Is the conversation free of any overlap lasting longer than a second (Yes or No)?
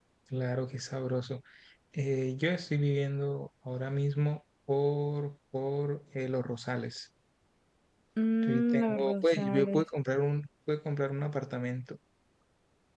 No